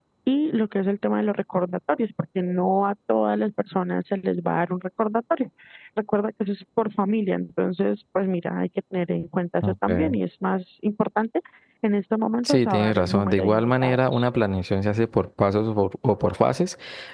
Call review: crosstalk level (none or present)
present